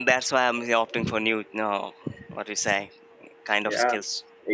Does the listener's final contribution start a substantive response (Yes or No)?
Yes